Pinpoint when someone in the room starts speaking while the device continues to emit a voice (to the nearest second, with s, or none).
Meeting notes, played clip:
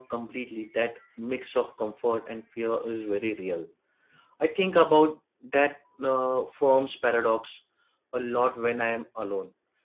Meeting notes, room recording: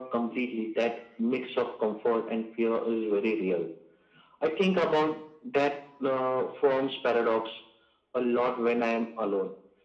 none